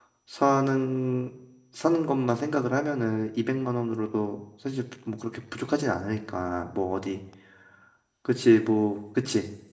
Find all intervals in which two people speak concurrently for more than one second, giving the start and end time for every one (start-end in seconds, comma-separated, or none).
none